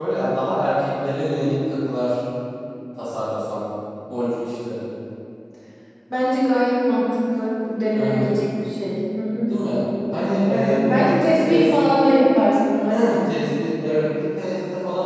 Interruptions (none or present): present